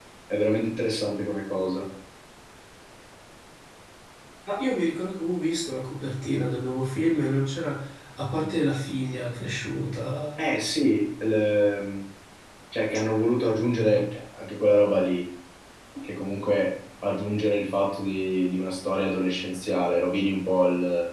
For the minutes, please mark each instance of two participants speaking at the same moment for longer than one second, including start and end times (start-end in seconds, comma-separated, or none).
none